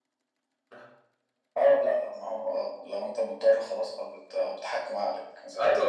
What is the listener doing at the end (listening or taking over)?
taking over